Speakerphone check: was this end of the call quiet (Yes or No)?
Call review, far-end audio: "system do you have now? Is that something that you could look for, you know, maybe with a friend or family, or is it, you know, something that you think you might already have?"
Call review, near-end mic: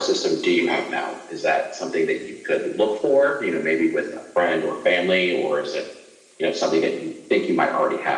Yes